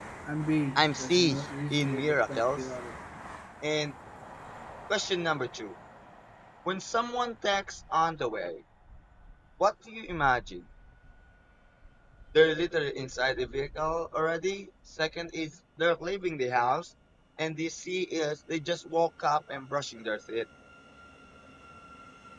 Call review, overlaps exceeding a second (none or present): present